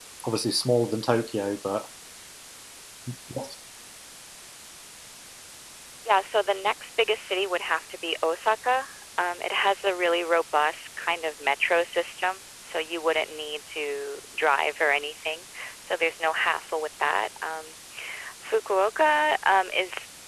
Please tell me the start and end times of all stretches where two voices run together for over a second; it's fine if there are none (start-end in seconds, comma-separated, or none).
none